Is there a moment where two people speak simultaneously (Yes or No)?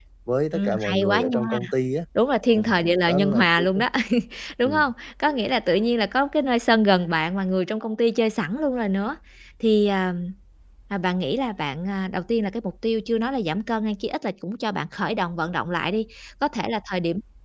Yes